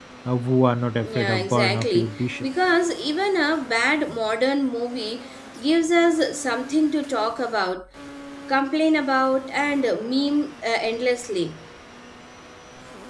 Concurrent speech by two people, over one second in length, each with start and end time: 1.0-2.5

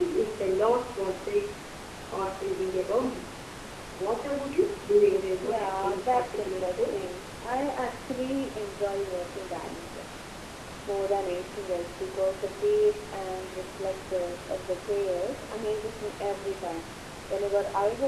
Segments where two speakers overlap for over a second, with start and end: 5.4-6.9

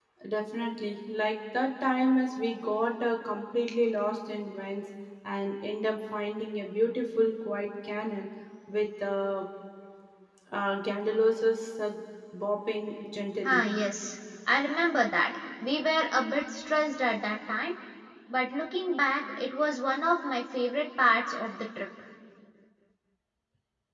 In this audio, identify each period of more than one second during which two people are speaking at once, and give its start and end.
none

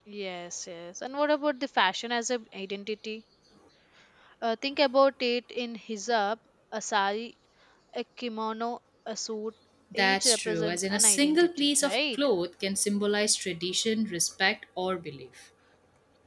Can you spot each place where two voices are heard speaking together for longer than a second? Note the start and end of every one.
9.9-12.2

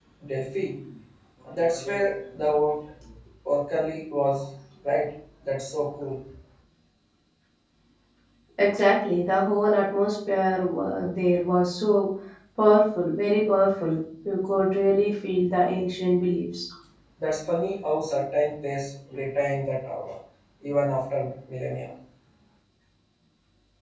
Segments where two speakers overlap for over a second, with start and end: none

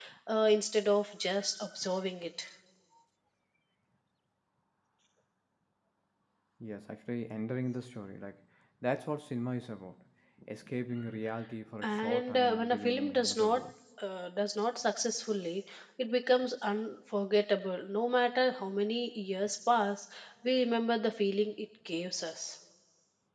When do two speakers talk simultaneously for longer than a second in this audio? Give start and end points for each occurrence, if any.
11.8-13.6

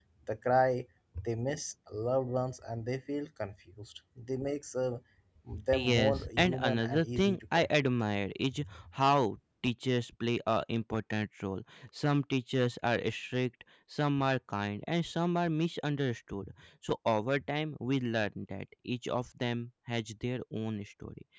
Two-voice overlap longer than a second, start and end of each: 5.7-7.9

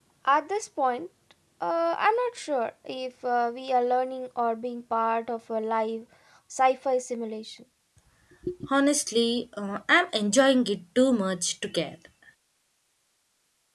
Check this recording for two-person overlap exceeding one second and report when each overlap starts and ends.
none

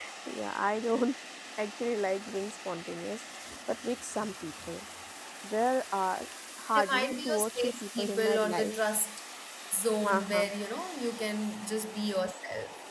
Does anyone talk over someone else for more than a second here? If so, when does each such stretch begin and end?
6.8-8.8

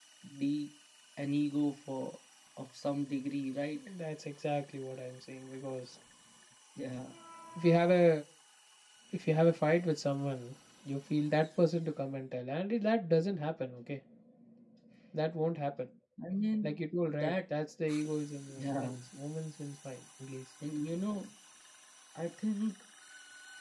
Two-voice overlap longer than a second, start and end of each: none

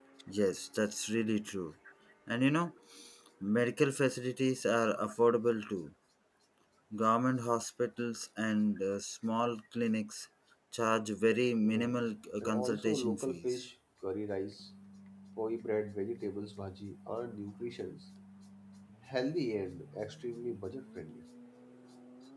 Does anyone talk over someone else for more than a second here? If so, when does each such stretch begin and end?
12.4-13.6

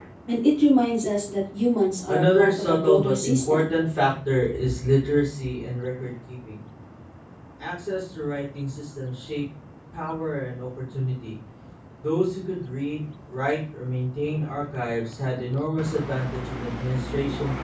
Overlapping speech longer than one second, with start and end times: 2.1-3.8

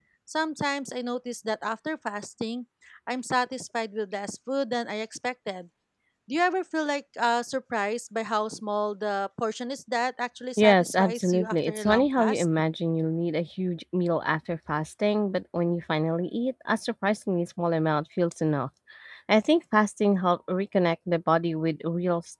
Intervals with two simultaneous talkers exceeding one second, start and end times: 10.6-12.4

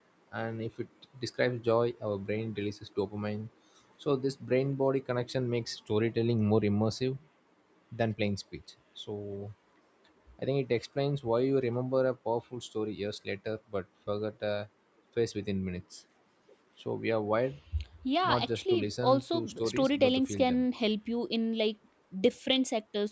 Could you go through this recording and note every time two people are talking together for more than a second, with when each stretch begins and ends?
18.2-20.6

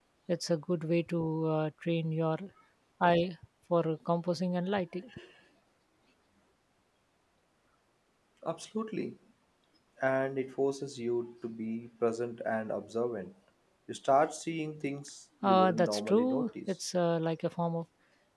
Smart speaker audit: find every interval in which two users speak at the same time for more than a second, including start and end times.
15.4-16.7

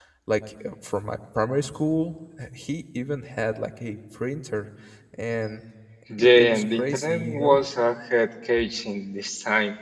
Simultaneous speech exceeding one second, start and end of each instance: 6.2-7.6

